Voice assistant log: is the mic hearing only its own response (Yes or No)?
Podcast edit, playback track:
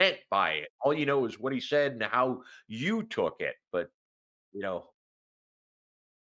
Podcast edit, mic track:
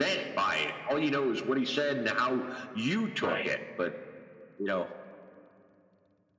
No